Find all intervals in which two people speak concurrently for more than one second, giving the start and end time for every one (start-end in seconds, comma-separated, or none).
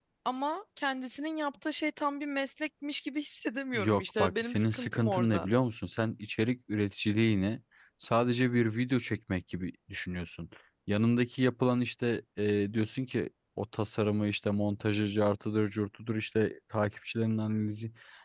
3.7-5.5